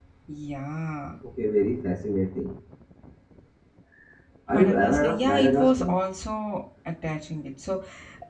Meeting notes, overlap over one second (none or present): present